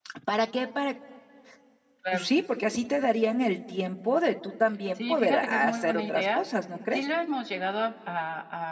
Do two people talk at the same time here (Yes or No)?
Yes